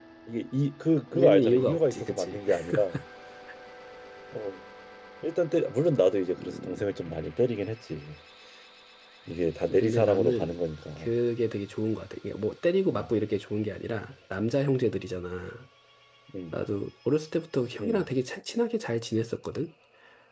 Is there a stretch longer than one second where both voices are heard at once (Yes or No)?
Yes